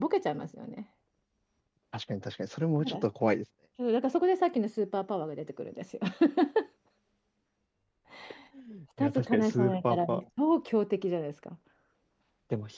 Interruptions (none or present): present